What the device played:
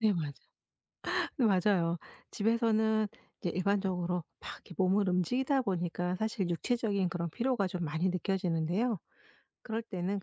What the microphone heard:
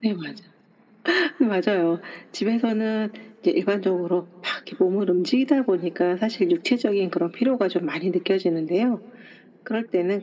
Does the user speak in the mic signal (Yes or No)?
No